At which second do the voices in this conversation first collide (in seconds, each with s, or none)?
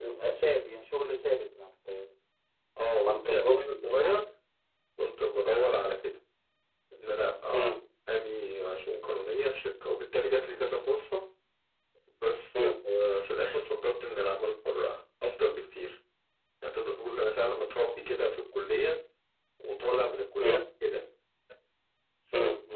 3.0 s